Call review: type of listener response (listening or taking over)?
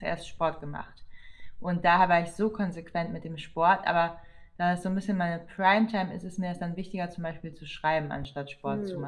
taking over